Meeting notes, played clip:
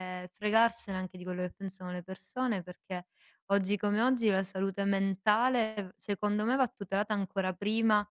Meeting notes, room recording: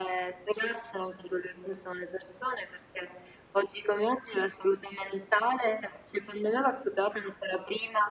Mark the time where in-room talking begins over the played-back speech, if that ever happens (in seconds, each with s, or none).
none